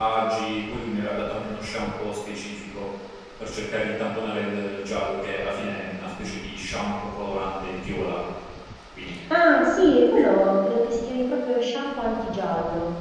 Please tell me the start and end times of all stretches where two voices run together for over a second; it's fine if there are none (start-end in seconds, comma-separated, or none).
none